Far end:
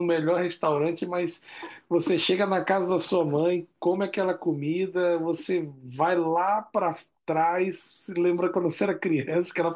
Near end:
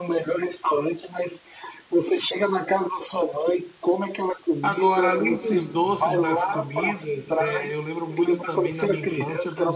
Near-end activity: present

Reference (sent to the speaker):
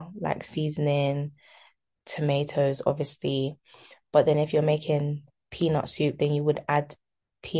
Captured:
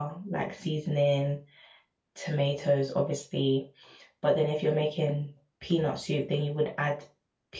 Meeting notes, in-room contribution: none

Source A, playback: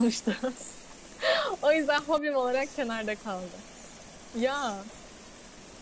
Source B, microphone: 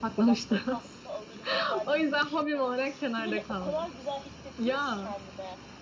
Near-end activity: present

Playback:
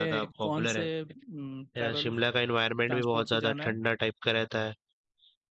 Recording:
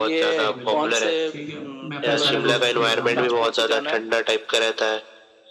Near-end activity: present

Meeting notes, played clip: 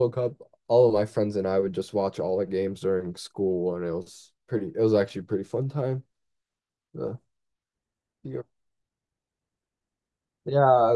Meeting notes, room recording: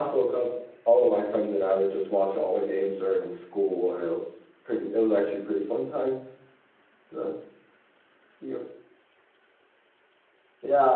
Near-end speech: none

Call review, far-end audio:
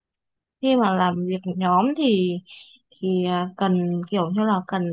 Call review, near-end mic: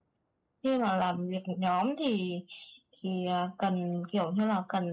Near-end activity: none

